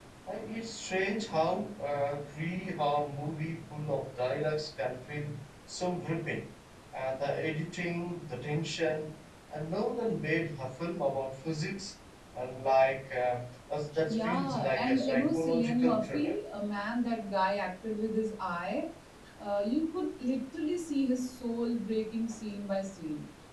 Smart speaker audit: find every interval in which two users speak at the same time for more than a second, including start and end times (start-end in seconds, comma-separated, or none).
14.1-16.3